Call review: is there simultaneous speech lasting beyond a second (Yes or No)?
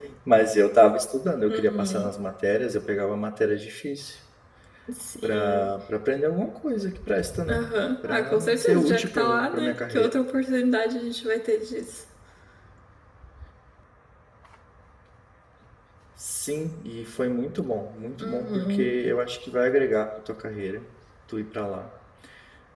Yes